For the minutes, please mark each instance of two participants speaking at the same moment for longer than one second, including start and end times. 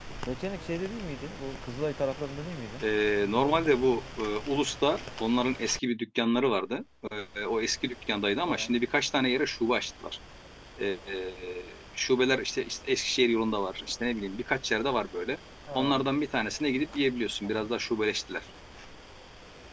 none

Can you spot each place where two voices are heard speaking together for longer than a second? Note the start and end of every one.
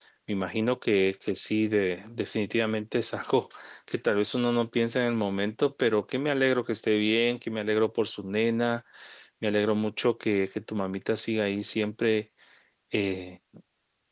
none

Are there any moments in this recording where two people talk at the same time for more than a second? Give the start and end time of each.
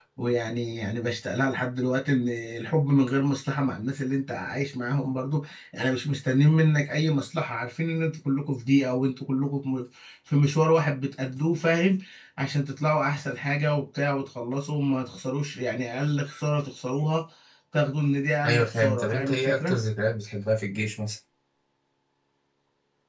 18.4-19.8

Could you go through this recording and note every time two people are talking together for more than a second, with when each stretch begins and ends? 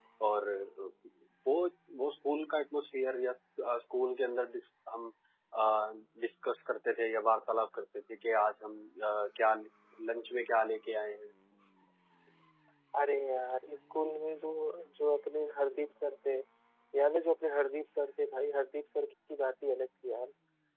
none

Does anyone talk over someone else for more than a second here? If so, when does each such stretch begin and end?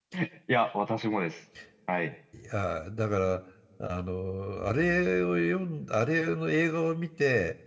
none

